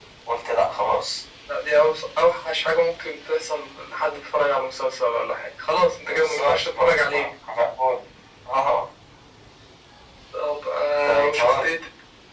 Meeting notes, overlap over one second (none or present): present